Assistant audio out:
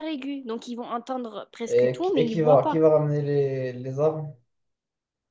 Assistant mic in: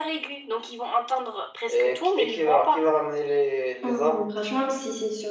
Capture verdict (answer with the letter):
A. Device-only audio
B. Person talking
B